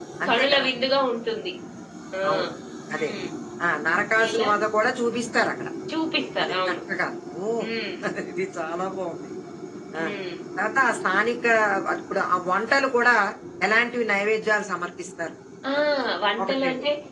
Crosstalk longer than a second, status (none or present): none